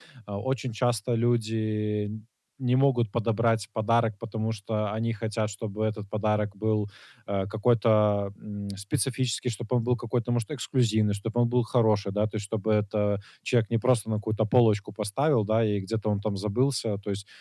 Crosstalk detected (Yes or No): No